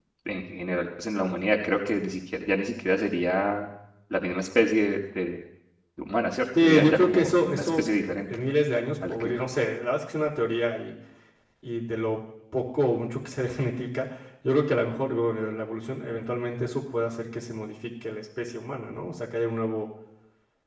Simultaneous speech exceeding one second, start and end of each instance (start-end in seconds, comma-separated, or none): 6.6-7.9